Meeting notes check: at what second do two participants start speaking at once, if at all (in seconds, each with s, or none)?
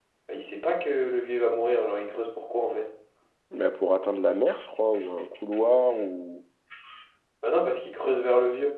none